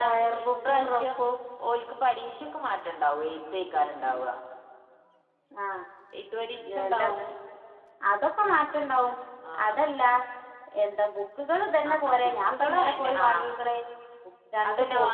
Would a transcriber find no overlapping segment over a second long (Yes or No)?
No